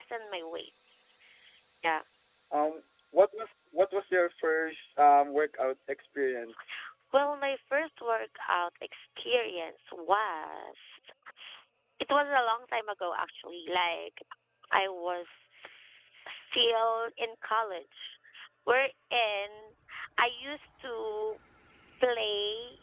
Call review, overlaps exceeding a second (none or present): none